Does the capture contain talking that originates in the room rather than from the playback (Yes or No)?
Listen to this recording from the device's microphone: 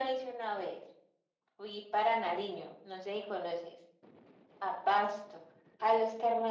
No